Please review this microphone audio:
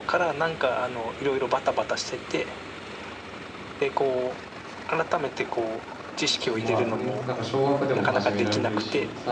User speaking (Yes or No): Yes